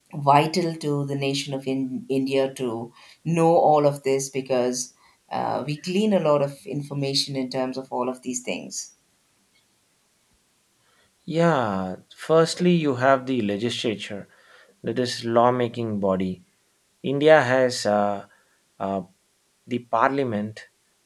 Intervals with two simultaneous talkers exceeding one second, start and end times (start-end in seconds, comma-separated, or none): none